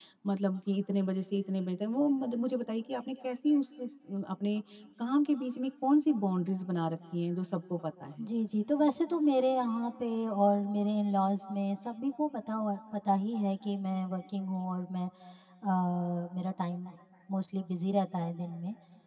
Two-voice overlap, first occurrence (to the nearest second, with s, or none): none